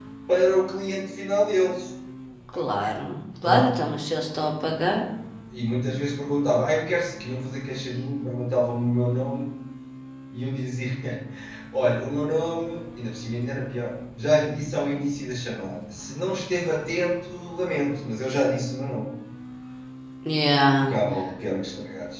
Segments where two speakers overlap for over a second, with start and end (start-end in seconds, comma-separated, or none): none